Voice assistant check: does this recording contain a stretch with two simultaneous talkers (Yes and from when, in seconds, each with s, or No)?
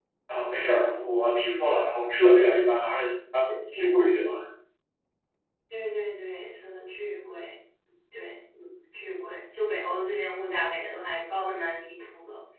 No